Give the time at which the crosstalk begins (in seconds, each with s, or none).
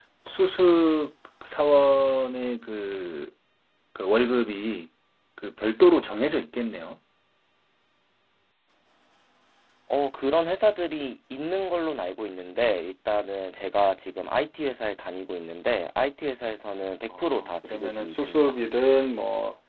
17.1 s